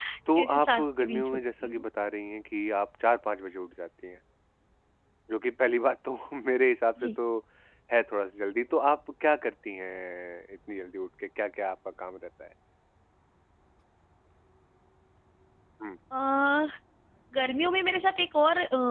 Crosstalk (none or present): present